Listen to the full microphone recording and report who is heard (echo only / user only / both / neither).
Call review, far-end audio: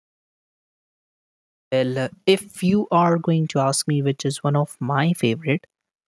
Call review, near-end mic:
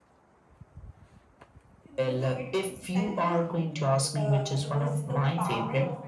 both